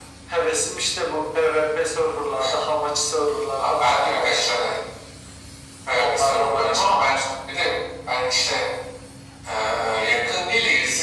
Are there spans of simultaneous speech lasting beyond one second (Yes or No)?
Yes